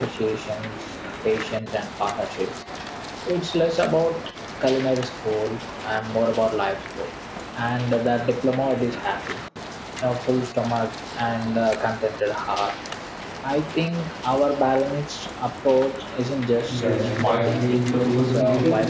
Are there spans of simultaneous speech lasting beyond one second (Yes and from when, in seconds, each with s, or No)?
Yes, from 16.7 s